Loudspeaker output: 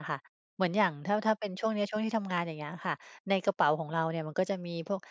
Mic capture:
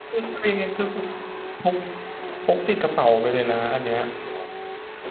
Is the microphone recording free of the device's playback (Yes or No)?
Yes